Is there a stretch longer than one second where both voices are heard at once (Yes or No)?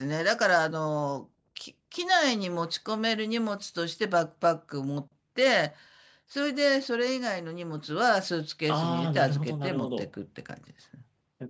Yes